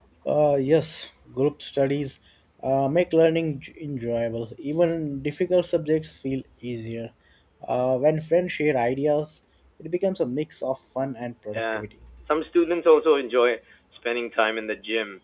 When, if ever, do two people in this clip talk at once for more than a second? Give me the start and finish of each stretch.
none

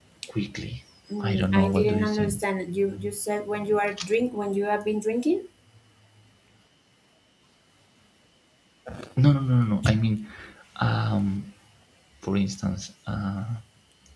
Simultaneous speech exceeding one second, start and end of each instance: 1.2-2.4

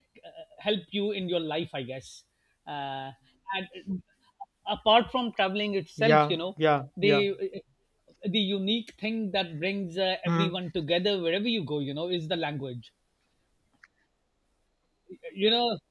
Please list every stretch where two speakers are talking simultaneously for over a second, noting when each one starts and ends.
none

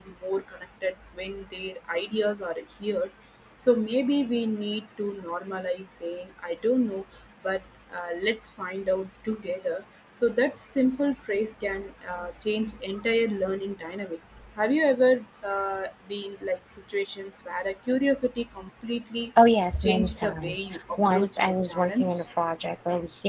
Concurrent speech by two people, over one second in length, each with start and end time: 19.8-22.1

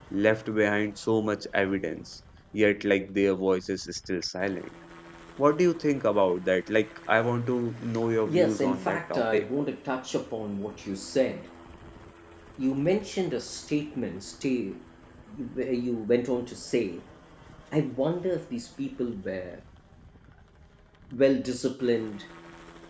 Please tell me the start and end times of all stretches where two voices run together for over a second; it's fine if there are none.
8.3-9.5

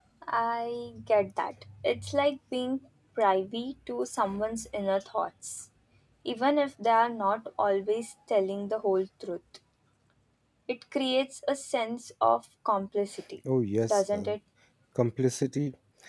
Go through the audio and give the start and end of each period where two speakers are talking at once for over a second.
none

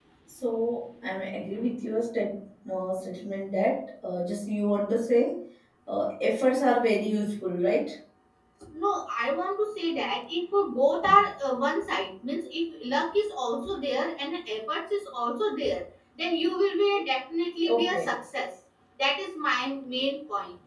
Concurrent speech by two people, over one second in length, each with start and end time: none

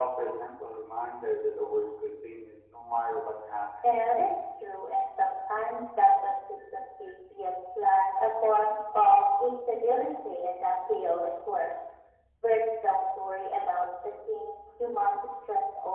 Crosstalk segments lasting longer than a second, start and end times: none

